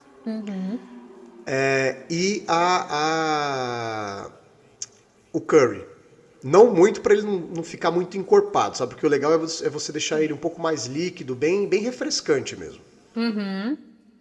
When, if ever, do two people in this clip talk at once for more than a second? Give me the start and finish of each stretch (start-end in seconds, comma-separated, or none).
none